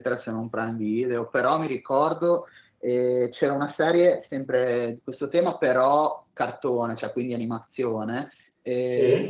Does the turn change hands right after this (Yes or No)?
No